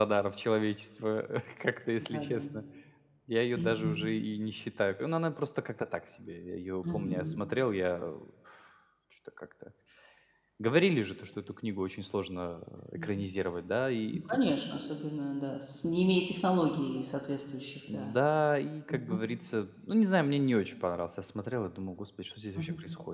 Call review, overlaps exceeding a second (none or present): none